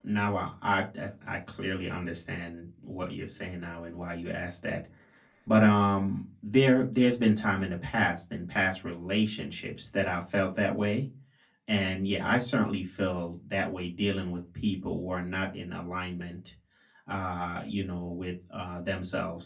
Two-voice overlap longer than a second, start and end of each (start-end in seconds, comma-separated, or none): none